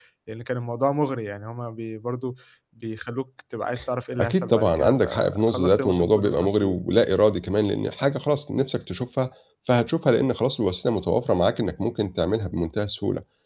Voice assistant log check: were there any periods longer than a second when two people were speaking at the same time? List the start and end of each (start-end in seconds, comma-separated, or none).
4.2-6.8